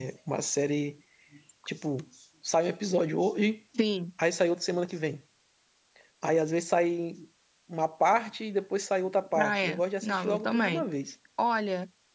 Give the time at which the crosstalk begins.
9.3 s

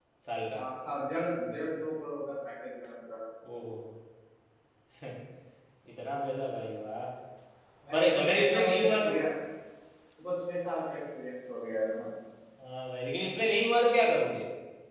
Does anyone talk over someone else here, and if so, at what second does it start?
7.9 s

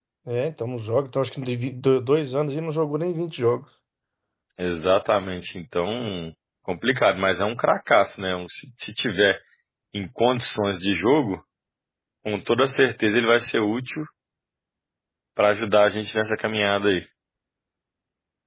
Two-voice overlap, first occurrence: none

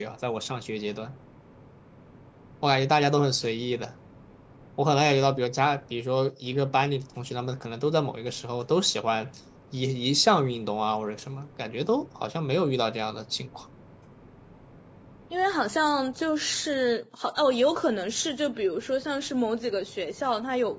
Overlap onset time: none

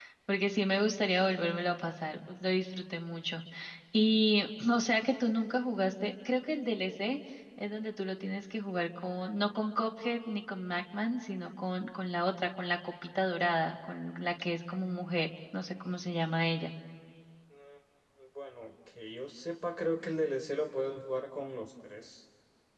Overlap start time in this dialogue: none

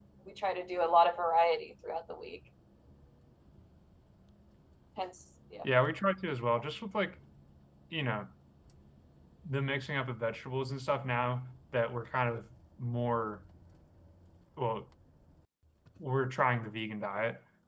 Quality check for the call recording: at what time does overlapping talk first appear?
none

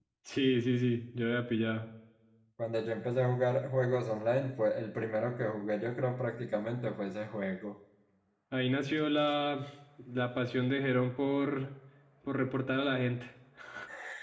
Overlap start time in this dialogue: none

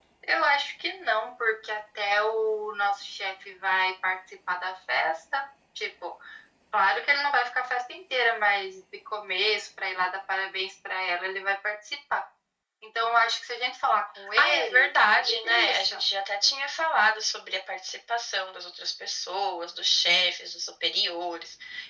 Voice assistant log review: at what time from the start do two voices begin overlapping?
14.4 s

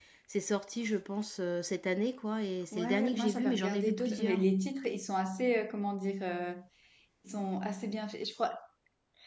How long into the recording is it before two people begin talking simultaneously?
2.7 s

